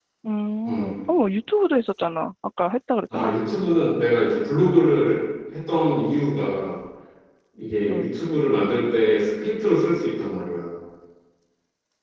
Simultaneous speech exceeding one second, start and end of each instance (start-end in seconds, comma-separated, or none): none